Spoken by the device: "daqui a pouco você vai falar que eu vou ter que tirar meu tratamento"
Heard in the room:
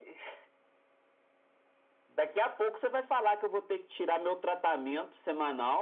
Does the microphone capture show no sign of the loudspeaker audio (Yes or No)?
No